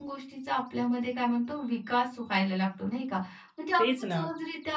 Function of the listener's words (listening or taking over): listening